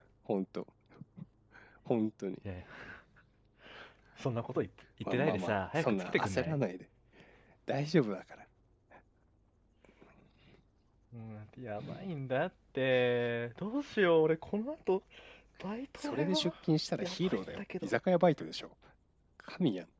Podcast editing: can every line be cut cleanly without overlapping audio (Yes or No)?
No